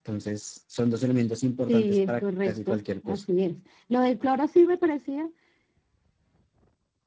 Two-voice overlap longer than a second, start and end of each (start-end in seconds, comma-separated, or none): 1.7-3.2